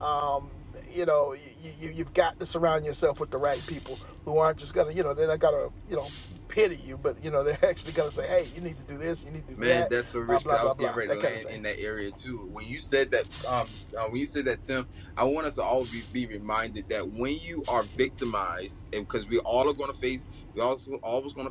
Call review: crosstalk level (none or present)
present